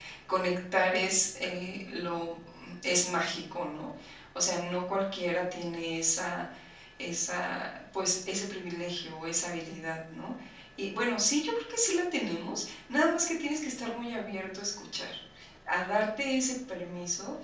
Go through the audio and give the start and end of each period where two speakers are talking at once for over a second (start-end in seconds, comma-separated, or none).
none